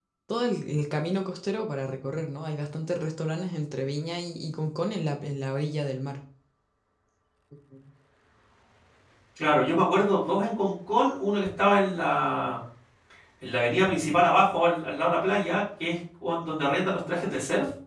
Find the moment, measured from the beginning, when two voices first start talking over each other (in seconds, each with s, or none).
none